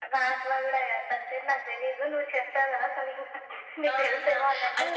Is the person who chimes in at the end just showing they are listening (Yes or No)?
No